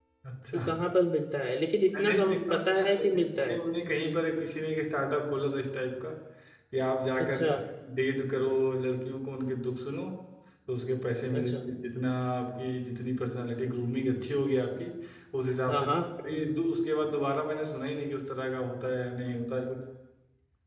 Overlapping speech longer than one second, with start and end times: 1.9-3.6

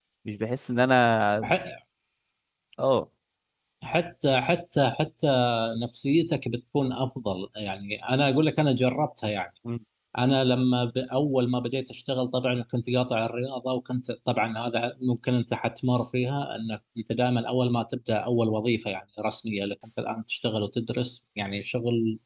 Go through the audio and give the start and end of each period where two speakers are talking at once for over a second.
none

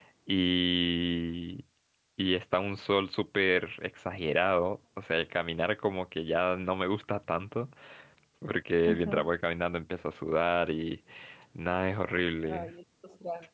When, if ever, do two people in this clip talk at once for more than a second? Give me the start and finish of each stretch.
none

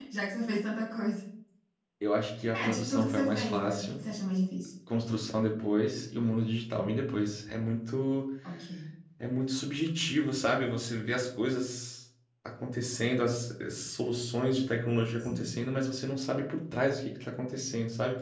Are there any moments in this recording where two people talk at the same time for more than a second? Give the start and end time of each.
2.5-4.0

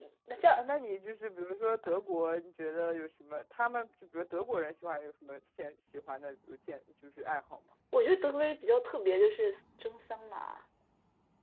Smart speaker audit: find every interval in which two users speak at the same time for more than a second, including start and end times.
none

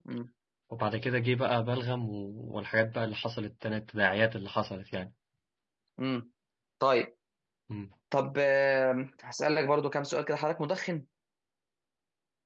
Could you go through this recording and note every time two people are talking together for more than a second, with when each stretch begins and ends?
none

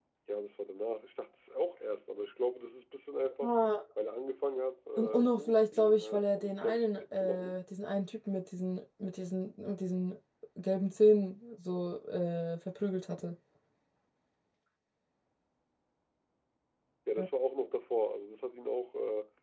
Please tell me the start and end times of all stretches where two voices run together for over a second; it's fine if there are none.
5.0-7.6

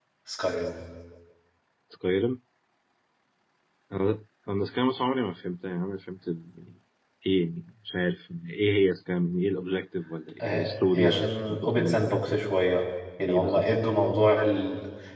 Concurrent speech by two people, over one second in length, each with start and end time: 10.4-12.4

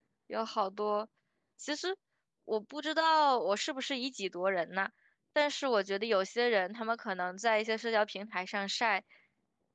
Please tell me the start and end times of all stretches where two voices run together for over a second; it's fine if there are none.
none

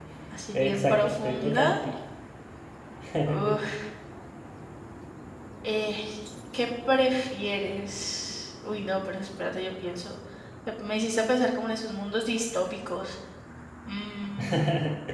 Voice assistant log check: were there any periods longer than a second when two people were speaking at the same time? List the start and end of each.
0.5-1.7

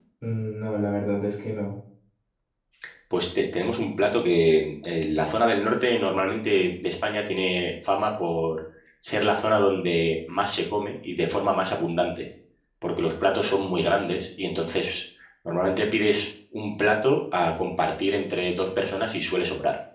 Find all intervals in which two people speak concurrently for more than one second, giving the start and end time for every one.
none

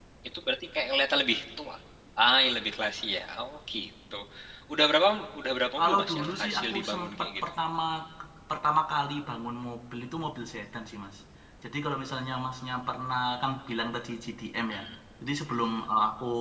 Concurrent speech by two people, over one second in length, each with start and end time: 5.8-7.5

